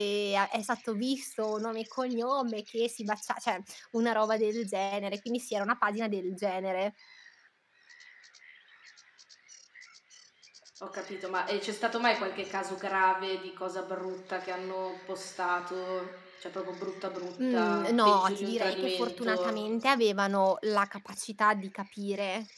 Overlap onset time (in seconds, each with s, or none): 17.4 s